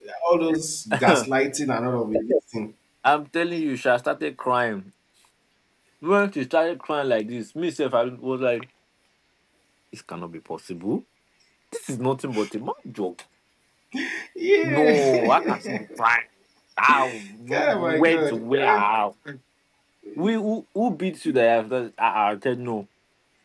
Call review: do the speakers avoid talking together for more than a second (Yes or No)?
No